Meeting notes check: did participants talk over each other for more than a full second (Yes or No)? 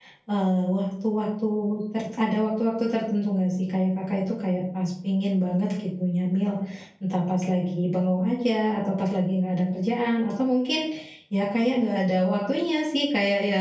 No